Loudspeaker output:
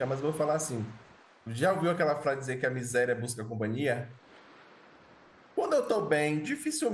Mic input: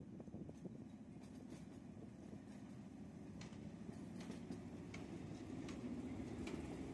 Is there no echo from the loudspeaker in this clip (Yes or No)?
Yes